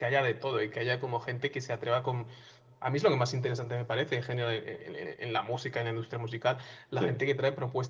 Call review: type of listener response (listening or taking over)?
listening